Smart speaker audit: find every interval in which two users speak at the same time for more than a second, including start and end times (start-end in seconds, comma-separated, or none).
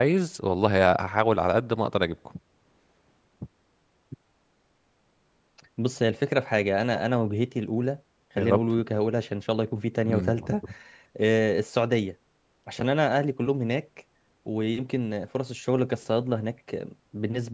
none